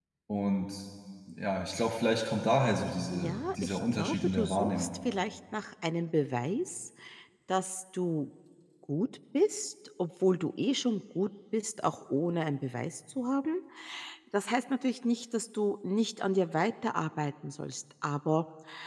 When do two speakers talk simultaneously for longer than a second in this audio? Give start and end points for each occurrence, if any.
3.1-4.9

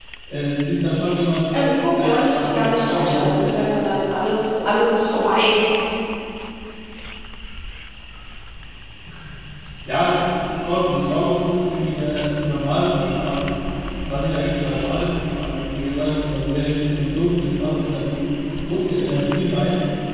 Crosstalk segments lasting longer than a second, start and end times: 1.5-3.6

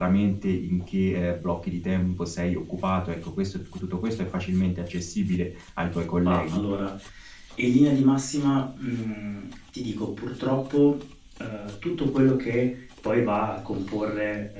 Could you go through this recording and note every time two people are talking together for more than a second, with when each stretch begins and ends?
none

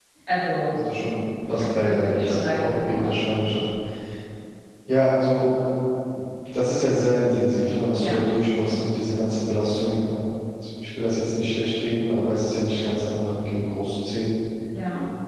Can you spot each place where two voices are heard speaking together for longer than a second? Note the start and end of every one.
1.5-3.2

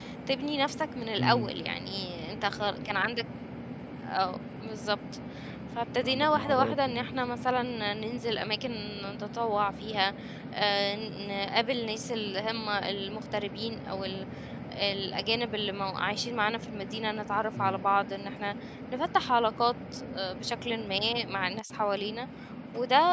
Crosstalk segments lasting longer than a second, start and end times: 6.0-7.4

